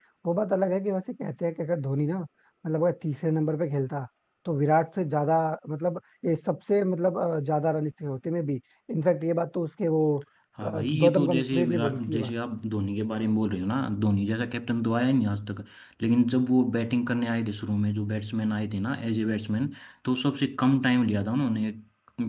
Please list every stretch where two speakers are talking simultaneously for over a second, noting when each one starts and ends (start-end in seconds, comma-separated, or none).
10.6-12.3